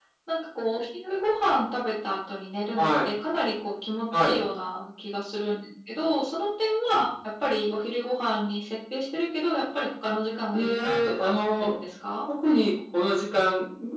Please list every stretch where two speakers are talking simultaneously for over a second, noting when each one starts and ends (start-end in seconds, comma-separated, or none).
10.5-11.8